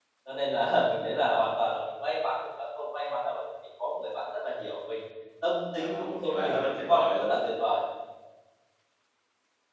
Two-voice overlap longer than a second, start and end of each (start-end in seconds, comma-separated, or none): 5.8-7.4